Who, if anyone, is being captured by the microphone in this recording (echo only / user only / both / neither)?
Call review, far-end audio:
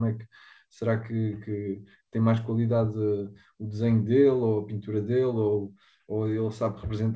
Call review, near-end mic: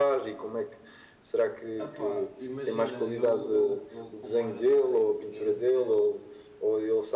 both